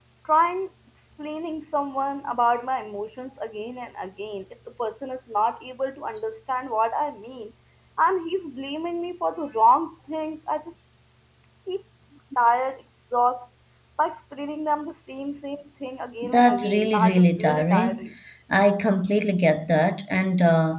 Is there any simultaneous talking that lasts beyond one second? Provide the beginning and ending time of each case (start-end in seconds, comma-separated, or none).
16.2-18.1